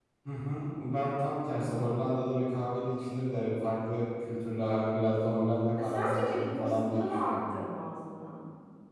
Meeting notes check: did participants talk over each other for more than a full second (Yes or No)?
Yes